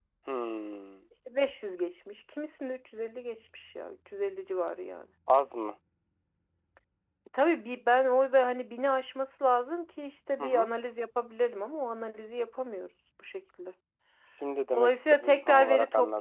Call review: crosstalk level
present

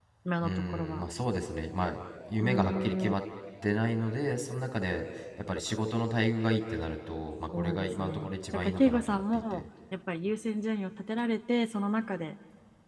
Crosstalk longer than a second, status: present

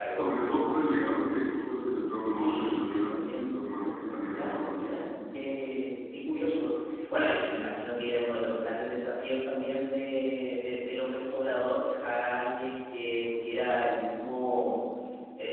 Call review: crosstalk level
present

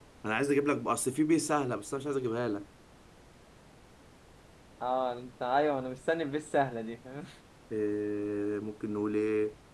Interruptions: none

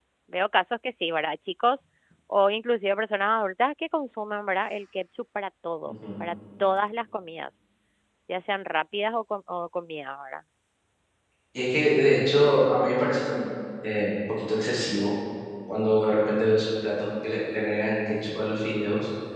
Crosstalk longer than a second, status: none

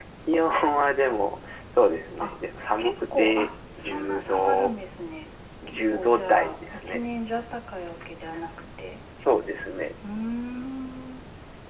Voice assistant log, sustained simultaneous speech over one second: present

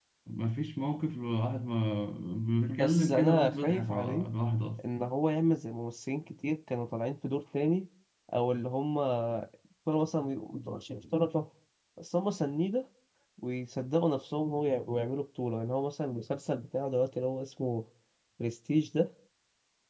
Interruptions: present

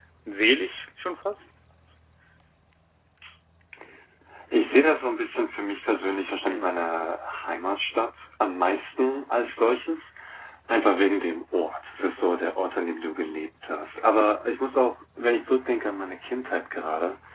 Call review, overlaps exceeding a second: none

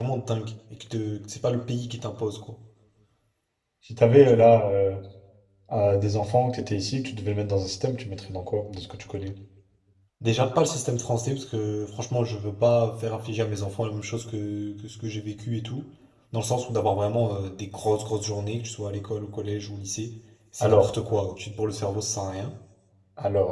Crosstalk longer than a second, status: none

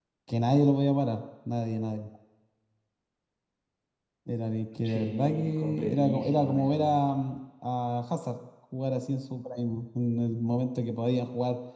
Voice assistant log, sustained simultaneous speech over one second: present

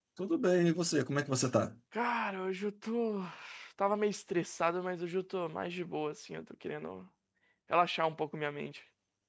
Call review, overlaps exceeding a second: none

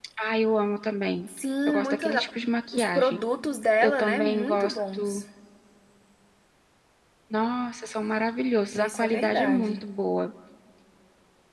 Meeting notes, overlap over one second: present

